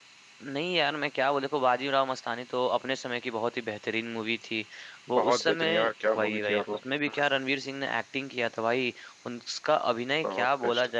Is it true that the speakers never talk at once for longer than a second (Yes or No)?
No